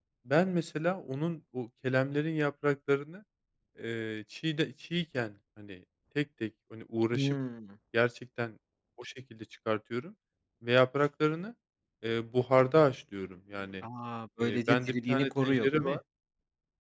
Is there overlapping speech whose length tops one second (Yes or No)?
Yes